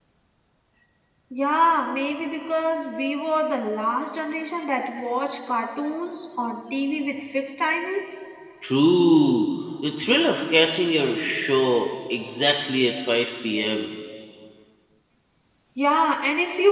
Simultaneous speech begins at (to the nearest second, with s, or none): none